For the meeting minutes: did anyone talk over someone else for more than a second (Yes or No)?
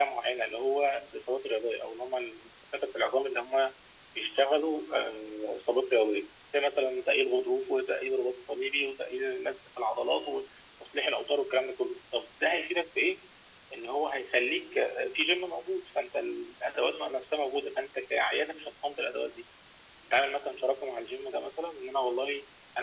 No